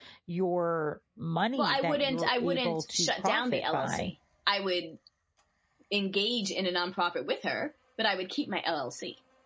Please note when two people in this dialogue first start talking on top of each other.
1.6 s

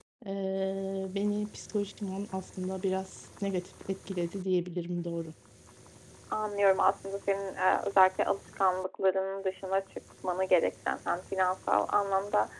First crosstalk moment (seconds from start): none

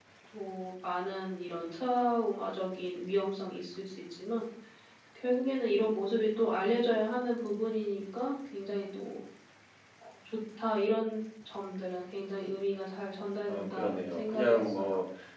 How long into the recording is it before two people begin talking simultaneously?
13.5 s

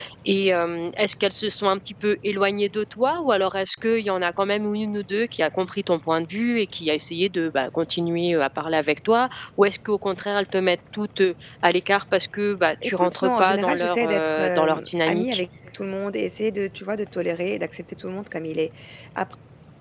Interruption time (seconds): 12.8 s

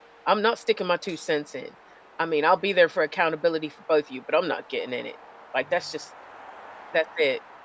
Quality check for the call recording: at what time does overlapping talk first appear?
none

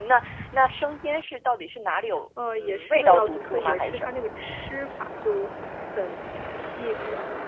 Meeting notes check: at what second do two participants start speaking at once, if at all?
2.4 s

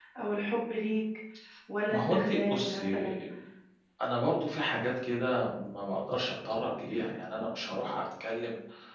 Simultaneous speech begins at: 1.9 s

